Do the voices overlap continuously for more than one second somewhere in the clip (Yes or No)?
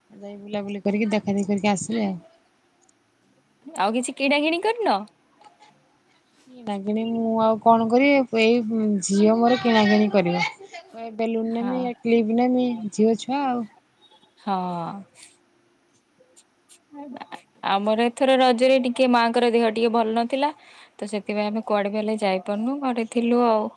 No